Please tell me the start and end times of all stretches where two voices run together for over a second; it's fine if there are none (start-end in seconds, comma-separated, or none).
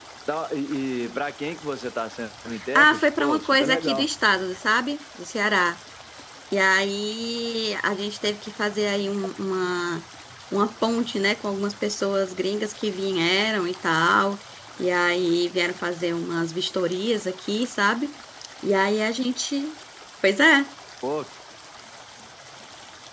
2.8-4.1